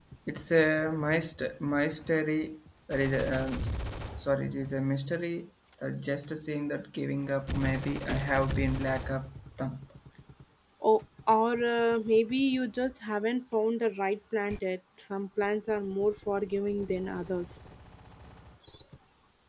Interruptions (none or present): none